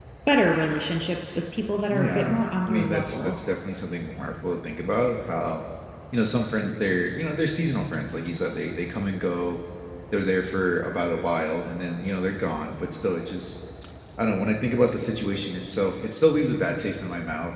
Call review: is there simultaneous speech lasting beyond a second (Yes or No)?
Yes